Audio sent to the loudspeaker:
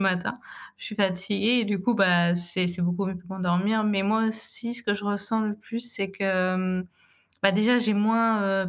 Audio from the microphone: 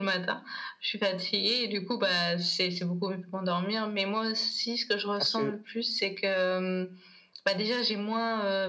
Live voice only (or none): parce que